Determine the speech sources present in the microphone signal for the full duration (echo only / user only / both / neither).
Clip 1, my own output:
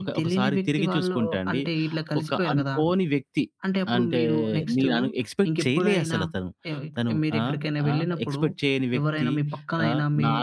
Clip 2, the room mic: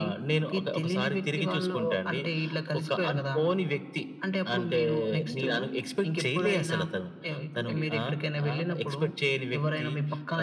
both